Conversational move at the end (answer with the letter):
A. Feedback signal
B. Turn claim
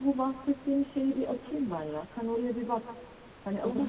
B